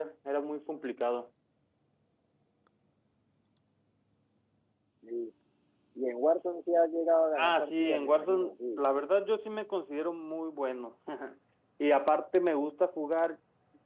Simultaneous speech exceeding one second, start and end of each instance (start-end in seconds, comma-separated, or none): 7.4-8.8